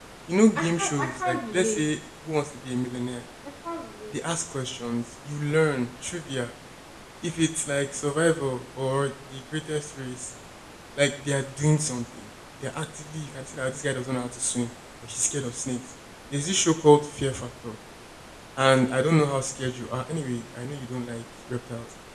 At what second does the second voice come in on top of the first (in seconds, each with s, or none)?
0.6 s